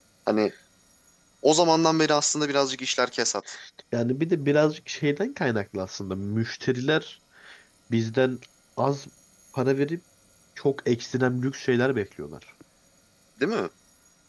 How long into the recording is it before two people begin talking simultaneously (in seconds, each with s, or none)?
none